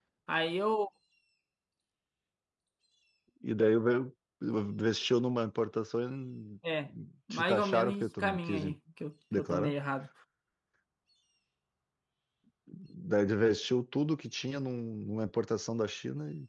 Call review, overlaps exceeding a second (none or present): present